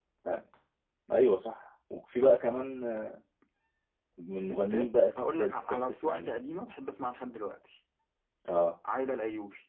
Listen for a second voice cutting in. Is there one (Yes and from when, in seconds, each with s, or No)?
Yes, from 4.4 s